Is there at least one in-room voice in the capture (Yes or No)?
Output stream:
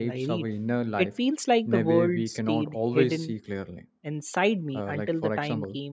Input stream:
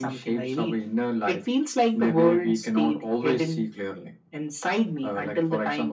No